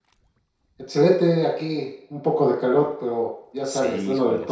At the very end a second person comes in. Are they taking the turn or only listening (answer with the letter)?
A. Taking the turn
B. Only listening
A